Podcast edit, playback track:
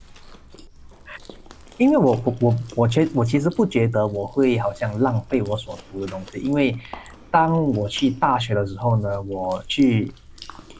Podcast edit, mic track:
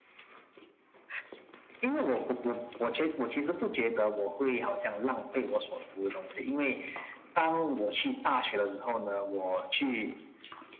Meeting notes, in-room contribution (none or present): none